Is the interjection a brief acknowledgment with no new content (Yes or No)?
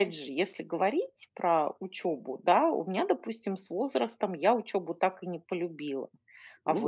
No